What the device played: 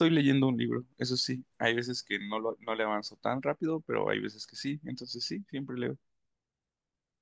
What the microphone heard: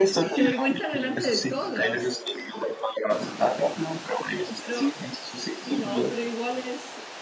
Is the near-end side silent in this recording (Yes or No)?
No